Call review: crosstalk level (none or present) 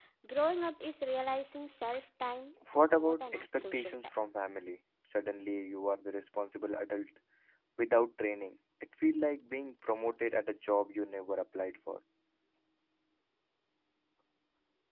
present